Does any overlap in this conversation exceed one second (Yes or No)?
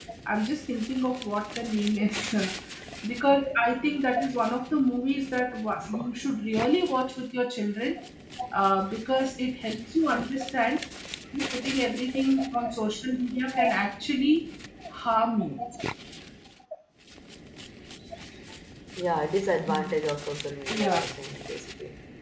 No